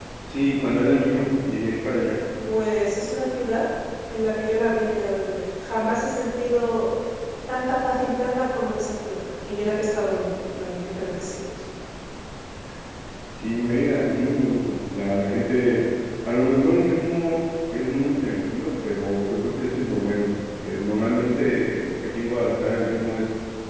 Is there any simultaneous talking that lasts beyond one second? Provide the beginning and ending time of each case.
none

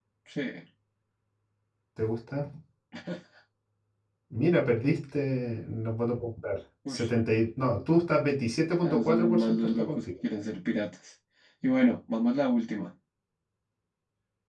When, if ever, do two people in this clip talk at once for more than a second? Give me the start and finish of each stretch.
8.8-10.1

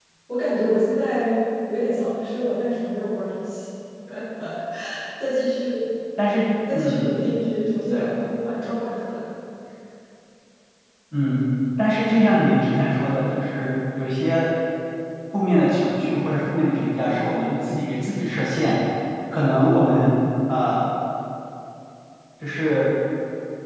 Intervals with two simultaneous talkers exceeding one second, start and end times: none

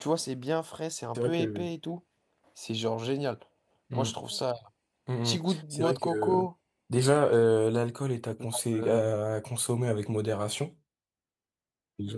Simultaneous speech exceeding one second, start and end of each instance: 5.2-6.5

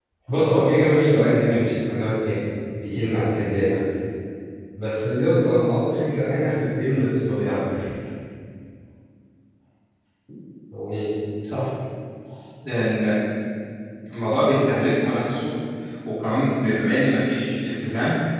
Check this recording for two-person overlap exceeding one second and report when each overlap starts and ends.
none

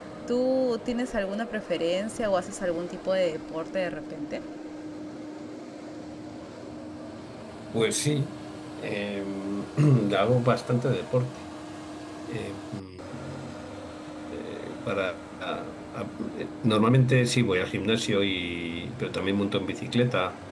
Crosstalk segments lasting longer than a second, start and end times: none

